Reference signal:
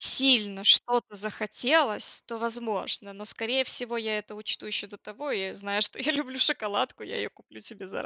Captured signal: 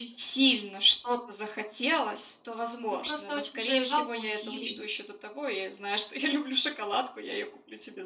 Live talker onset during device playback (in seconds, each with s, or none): 2.9 s